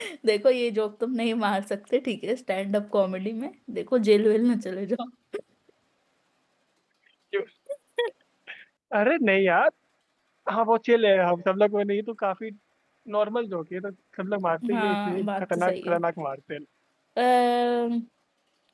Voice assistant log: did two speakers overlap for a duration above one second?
Yes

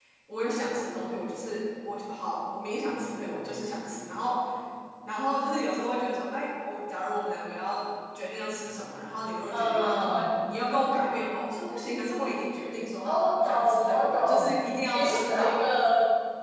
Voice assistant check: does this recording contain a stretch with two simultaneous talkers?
Yes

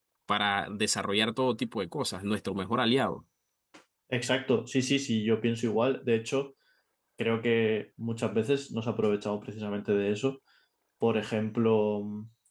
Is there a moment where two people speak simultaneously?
No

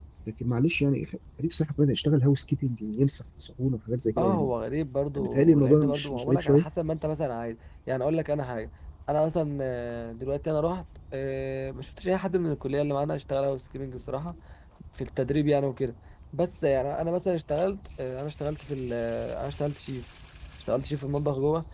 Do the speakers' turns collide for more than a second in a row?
Yes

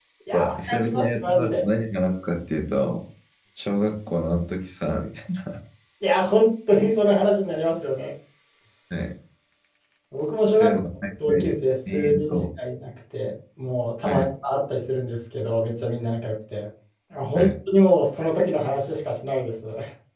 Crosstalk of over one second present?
Yes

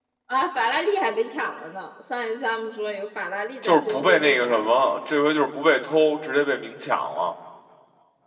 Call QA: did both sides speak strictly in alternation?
No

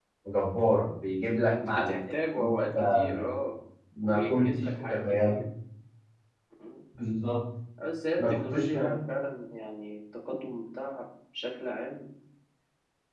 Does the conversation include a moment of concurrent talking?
Yes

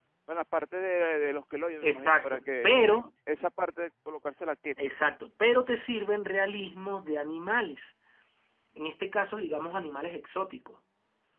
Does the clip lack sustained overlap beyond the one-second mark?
No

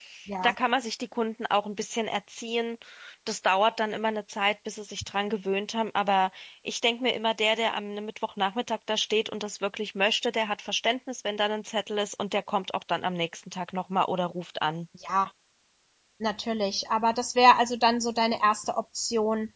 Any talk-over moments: No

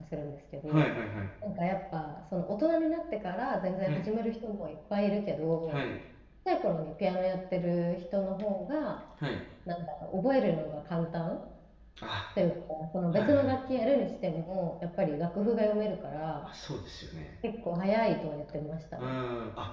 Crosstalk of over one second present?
No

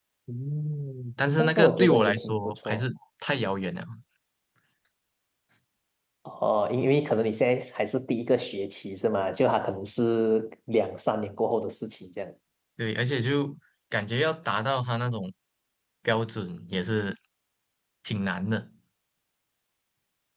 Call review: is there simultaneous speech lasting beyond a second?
Yes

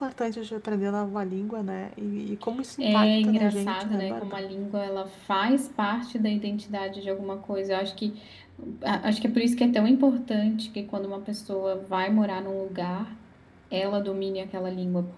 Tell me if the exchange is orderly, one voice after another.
No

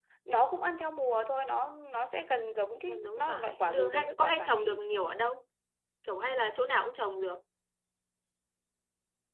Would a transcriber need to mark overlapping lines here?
Yes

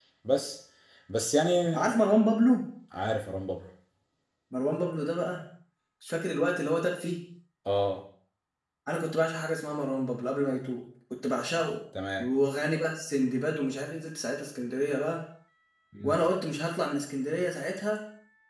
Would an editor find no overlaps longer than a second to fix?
Yes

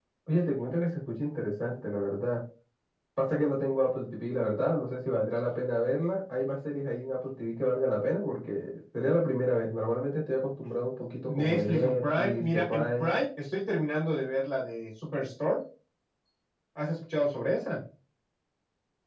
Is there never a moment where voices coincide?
No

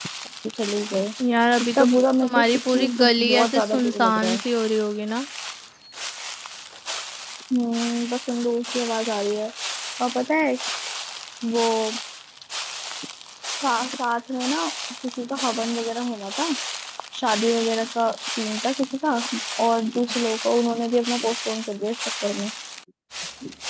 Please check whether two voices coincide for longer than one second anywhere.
Yes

